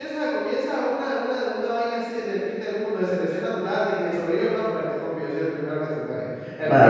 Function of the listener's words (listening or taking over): taking over